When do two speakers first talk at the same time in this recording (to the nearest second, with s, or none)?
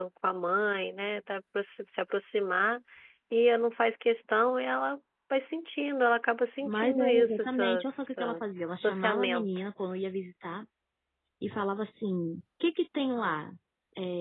7 s